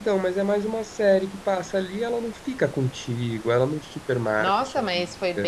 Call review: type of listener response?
taking over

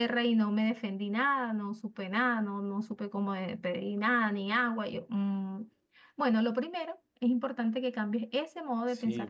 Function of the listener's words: taking over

